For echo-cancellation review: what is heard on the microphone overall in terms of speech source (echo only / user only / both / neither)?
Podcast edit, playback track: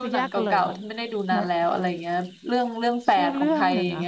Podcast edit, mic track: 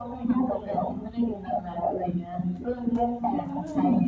echo only